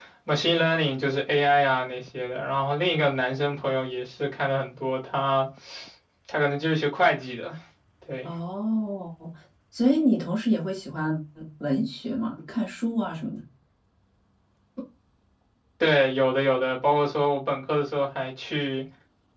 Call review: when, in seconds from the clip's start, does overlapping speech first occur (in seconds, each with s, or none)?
none